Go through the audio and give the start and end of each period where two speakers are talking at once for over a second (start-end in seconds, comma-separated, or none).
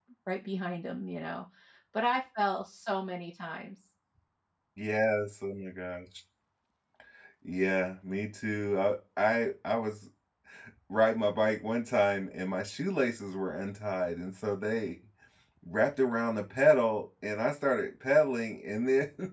none